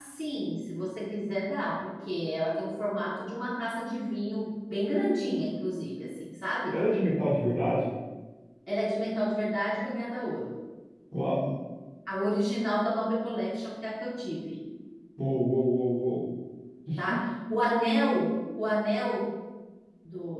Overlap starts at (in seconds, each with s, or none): none